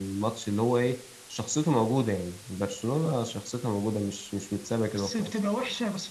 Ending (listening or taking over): taking over